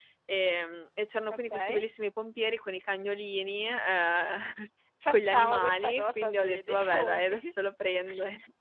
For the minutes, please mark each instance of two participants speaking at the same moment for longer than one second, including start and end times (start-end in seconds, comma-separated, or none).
5.1-7.5